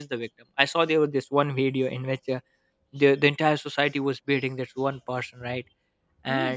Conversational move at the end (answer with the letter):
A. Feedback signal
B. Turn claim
A